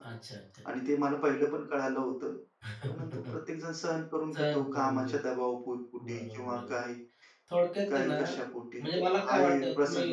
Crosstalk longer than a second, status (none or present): present